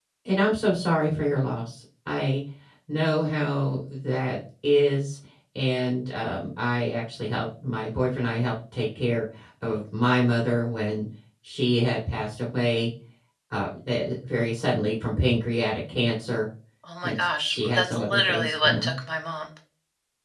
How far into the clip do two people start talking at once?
17.0 s

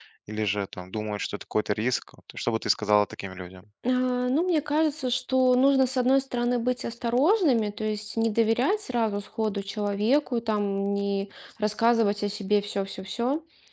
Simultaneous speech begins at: none

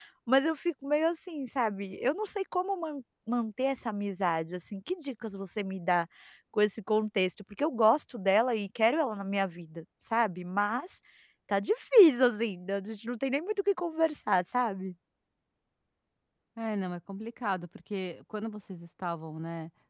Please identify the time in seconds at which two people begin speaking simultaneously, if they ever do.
none

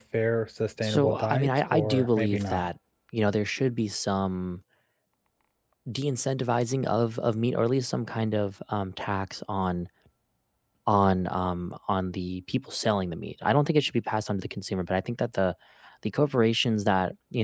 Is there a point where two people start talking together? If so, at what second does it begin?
0.8 s

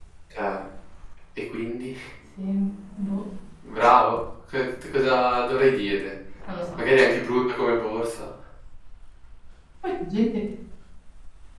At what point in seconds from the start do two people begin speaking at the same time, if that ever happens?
none

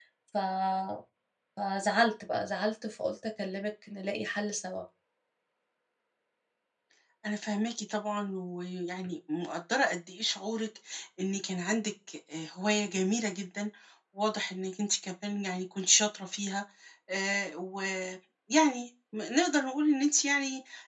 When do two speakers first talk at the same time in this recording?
none

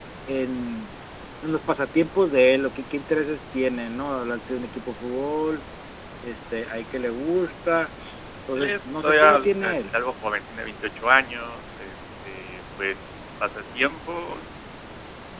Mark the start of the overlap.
8.6 s

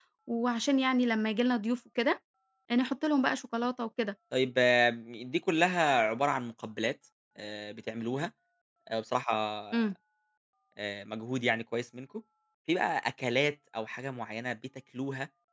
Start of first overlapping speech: none

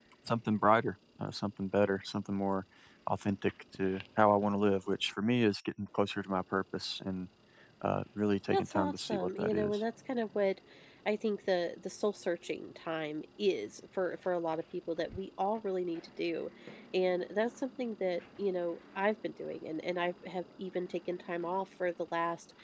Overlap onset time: 8.5 s

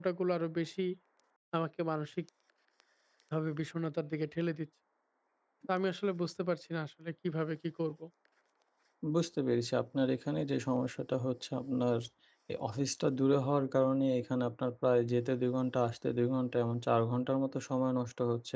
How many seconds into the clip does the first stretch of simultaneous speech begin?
none

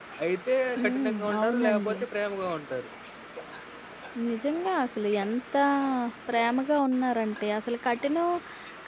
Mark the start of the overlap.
0.8 s

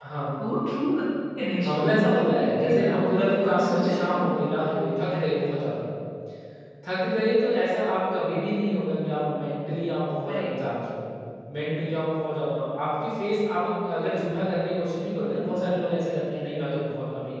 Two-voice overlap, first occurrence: 1.6 s

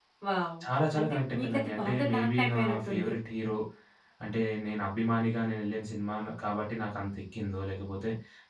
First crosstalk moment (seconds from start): 1.0 s

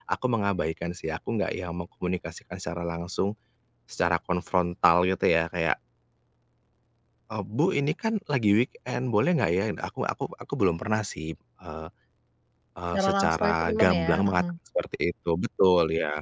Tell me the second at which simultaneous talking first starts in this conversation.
12.9 s

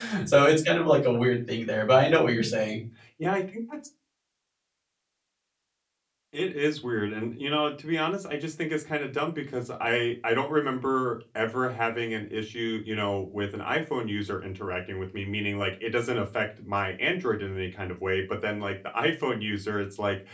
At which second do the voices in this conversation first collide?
none

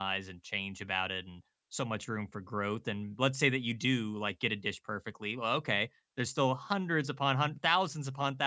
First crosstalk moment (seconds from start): none

